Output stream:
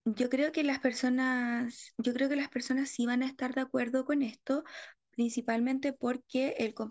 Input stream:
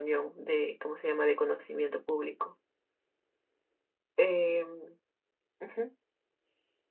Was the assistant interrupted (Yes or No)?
Yes